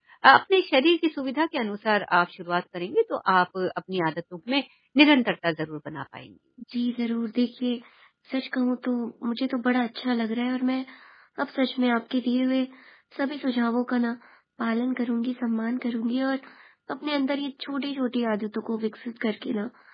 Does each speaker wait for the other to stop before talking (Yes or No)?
Yes